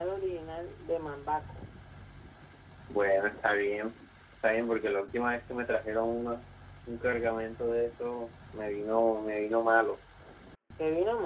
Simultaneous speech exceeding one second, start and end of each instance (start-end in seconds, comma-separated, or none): none